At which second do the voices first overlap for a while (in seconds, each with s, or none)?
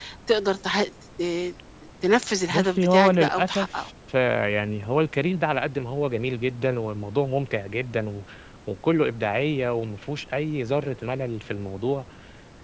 2.5 s